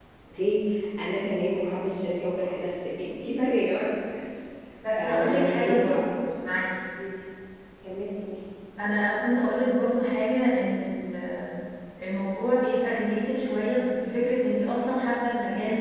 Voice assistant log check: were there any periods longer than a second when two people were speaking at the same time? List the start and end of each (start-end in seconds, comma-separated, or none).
5.0-6.3